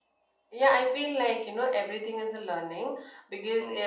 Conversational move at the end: listening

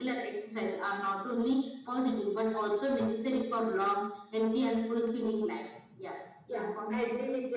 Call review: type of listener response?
taking over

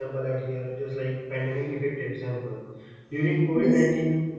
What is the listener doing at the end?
listening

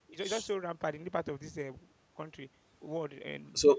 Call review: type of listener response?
taking over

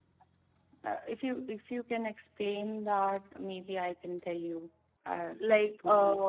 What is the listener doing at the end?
taking over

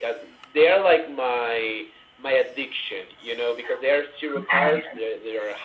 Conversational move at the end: listening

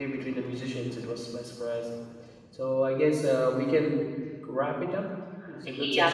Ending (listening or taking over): taking over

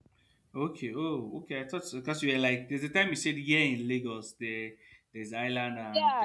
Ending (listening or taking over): taking over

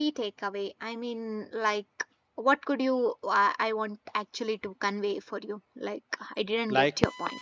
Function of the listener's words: taking over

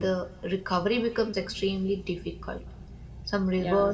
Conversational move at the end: listening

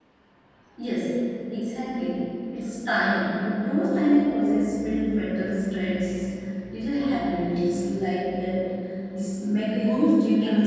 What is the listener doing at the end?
taking over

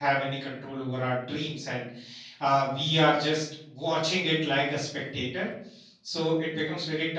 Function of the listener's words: listening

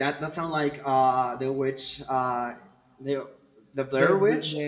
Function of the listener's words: taking over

